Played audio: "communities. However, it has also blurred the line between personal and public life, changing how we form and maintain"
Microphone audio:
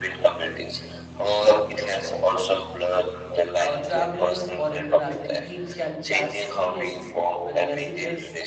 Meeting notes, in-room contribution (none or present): present